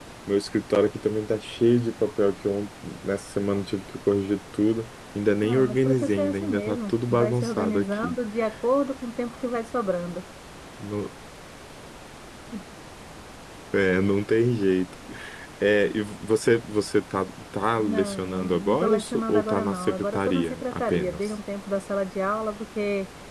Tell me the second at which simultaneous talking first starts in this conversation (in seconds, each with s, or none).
5.4 s